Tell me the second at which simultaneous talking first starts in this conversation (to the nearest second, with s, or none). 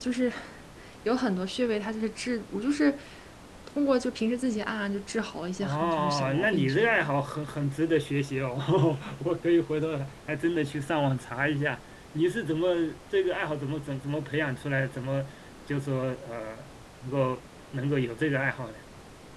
6 s